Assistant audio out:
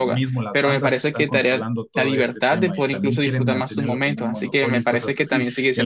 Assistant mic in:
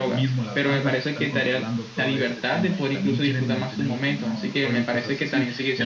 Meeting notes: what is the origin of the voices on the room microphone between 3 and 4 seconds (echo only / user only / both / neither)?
echo only